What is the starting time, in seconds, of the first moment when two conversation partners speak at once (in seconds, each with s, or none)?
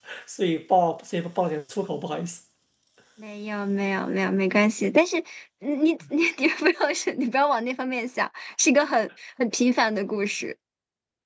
none